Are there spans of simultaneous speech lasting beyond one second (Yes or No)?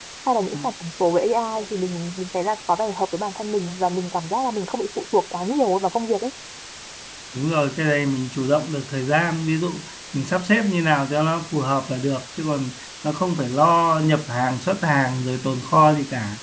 No